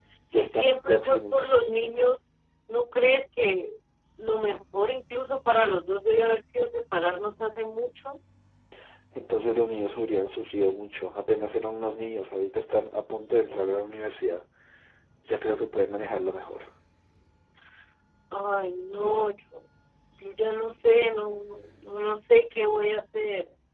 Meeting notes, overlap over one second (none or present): present